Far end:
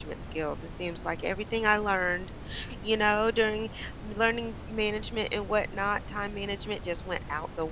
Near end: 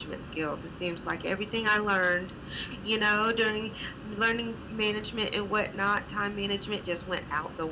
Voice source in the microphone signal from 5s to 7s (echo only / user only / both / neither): echo only